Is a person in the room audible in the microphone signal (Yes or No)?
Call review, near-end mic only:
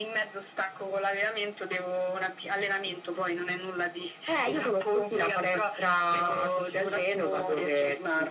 No